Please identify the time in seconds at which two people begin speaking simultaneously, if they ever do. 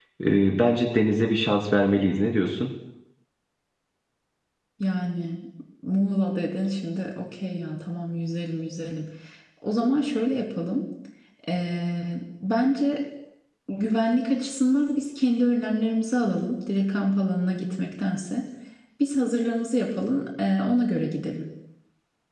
none

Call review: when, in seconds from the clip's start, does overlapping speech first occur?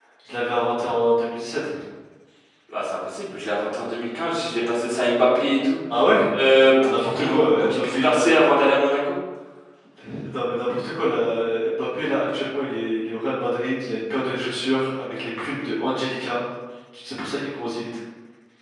7 s

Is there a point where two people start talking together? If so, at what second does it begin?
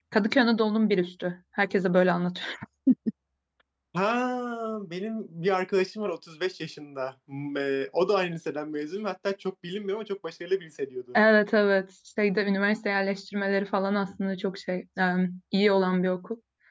none

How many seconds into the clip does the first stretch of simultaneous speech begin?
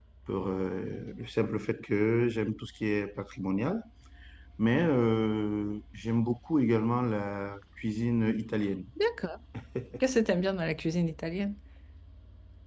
none

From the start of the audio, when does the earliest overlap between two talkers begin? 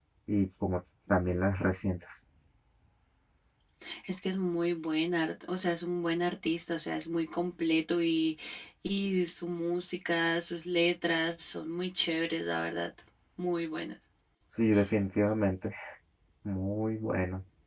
none

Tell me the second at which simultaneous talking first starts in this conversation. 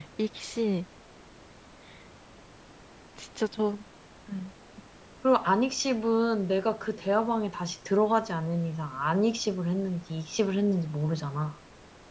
none

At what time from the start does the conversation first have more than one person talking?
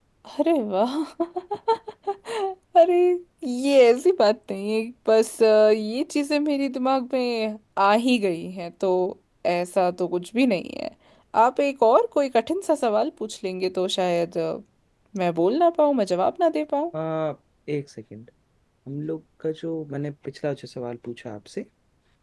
none

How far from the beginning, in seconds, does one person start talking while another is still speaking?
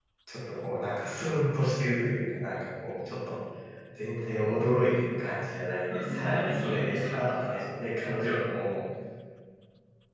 6 s

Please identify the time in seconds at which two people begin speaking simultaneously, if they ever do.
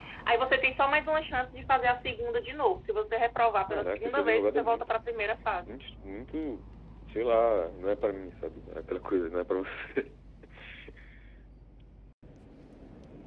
4 s

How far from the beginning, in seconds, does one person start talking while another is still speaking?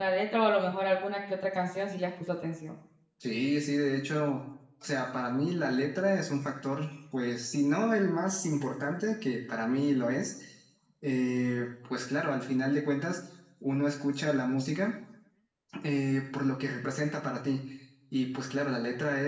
none

